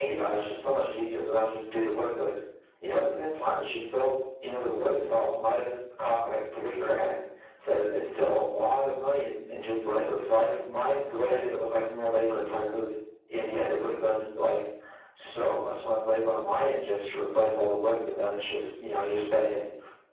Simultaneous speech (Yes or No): No